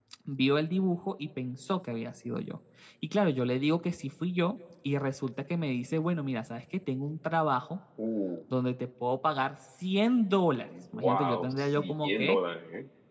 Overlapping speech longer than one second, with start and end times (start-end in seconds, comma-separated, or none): 10.9-12.4